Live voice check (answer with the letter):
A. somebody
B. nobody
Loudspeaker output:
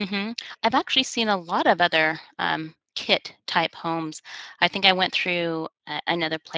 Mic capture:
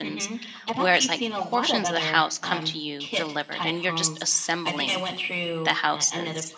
A